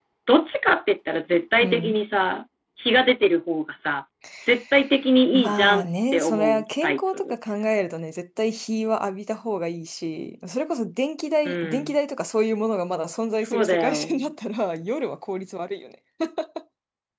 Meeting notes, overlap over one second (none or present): present